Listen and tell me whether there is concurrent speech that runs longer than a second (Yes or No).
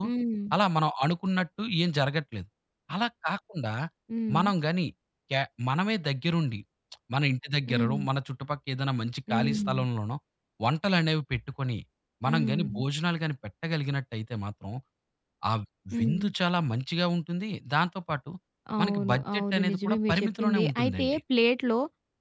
Yes